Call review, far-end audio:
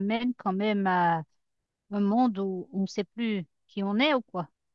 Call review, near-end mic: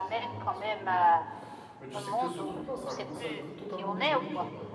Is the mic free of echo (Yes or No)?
No